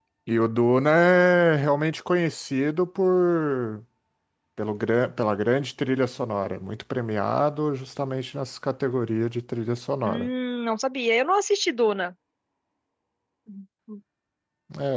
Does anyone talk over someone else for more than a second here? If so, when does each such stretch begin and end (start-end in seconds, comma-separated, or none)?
none